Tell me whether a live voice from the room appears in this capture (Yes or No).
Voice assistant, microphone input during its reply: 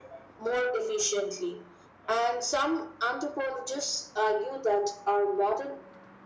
No